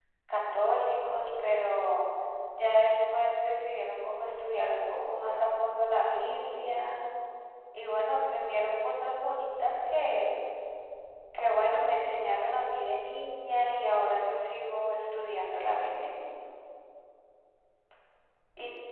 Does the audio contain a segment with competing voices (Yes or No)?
No